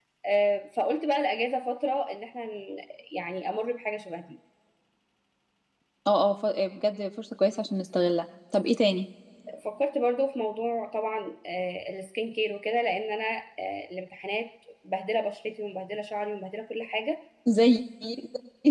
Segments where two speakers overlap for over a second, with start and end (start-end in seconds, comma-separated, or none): none